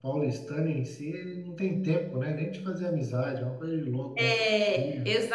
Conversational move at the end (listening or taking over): taking over